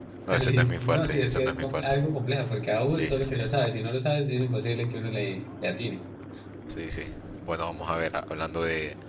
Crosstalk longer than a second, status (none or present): present